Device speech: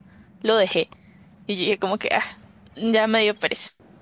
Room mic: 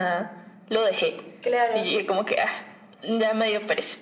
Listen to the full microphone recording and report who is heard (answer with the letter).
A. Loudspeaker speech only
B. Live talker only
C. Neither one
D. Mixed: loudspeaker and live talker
D